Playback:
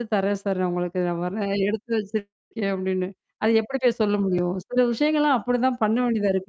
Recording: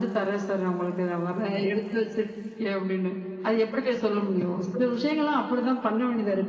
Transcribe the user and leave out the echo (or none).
none